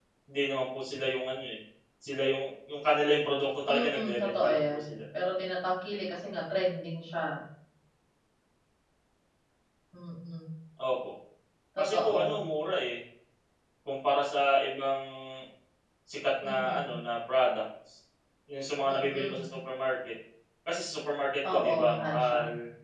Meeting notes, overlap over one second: present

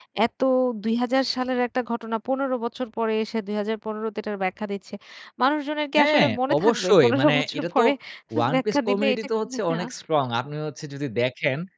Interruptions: present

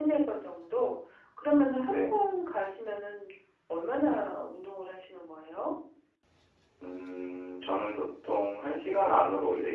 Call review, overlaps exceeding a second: none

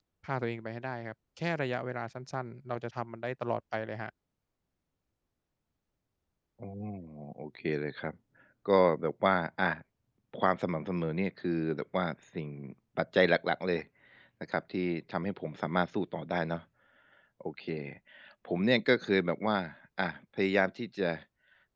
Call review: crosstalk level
none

